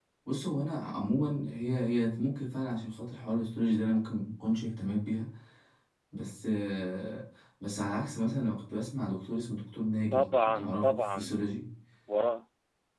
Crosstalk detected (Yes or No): Yes